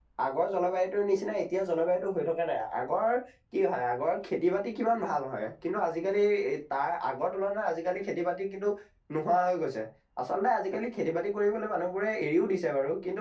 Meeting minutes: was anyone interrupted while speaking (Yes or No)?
No